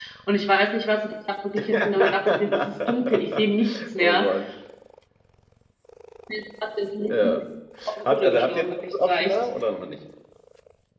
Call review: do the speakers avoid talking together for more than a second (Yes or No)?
No